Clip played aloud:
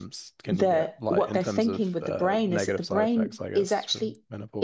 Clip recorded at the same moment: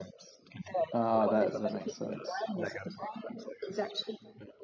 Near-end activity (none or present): present